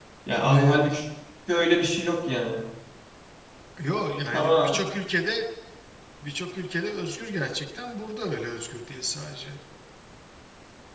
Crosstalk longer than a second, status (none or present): none